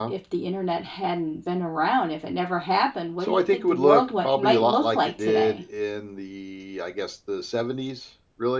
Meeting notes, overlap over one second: present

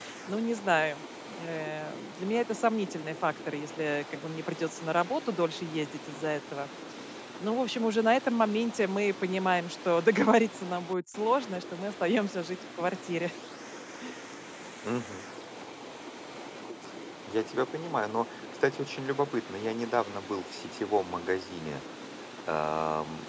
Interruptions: none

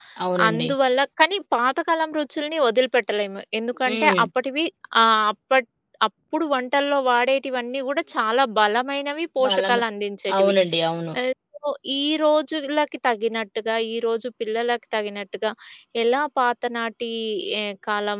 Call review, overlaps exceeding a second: none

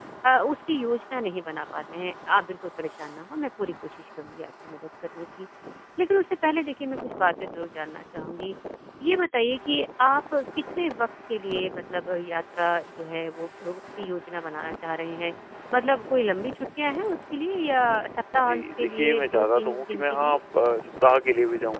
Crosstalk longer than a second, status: present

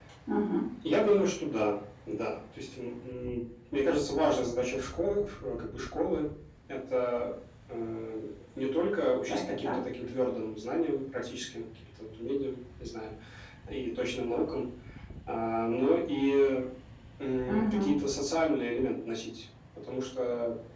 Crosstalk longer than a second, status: none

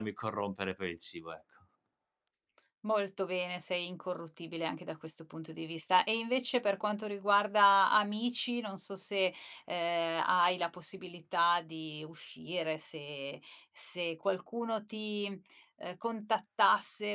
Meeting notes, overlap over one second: none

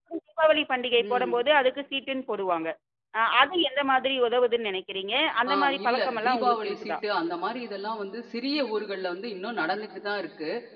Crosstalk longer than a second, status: present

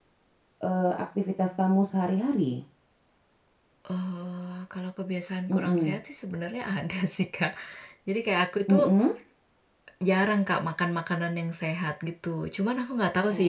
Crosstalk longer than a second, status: none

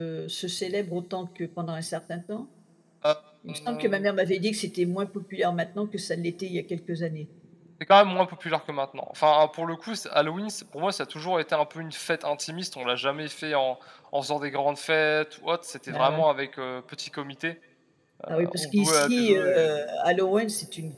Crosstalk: present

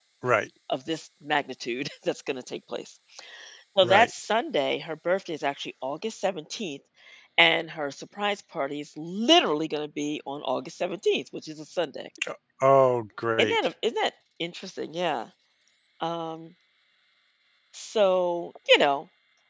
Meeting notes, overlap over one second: none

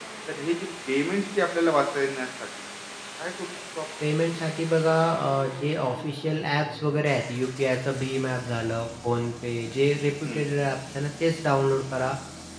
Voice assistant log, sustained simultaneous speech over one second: none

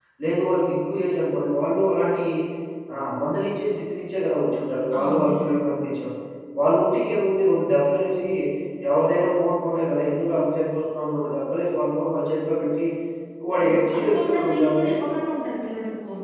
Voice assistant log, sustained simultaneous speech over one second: present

